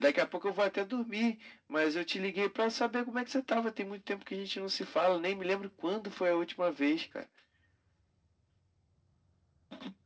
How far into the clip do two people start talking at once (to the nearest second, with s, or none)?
none